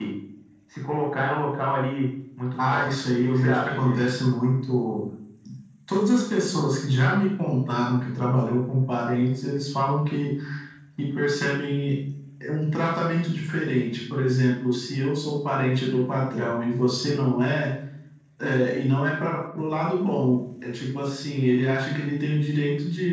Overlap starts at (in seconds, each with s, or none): 2.6 s